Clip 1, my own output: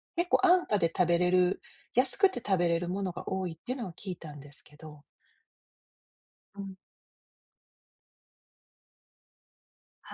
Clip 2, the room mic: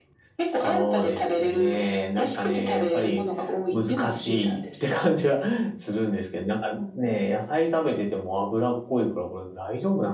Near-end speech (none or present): present